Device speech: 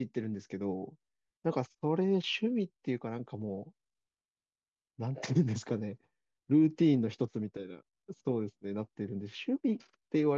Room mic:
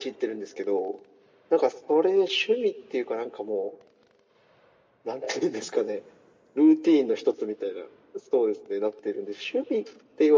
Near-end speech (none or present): none